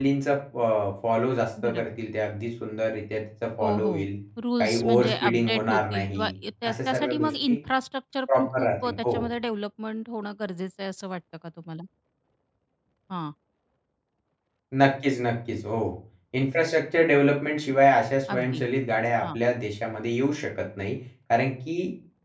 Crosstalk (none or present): present